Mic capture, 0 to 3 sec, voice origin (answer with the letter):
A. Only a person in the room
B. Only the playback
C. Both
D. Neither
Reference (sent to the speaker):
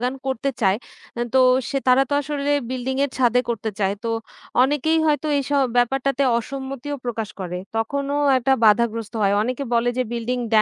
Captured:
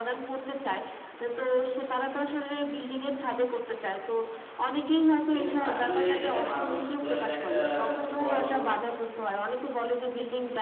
B